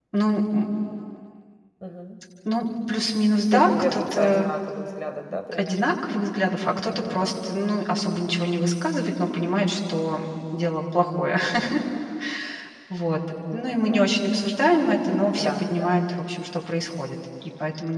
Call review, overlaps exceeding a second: present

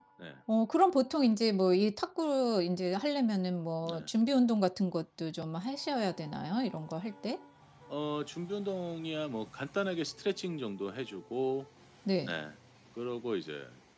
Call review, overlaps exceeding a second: none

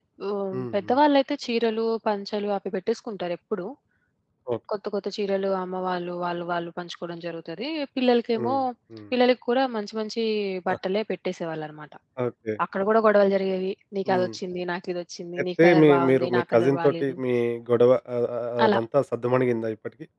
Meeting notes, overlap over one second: present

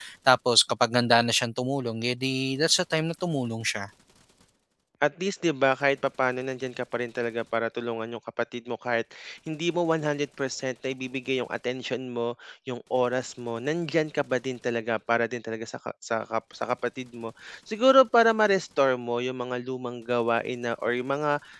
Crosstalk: none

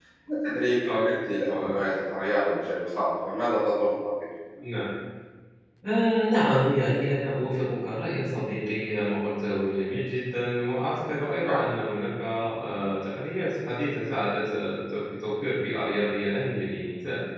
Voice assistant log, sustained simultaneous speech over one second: none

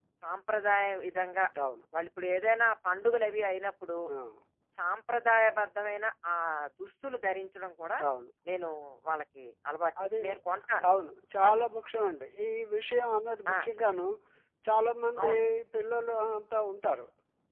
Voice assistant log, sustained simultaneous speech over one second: none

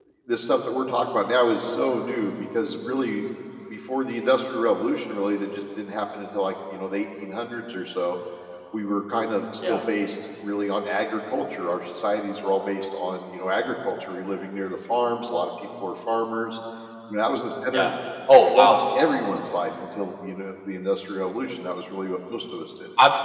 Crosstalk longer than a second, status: none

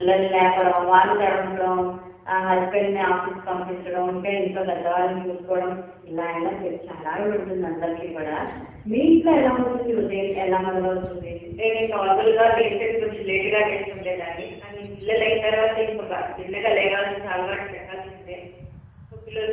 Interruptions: none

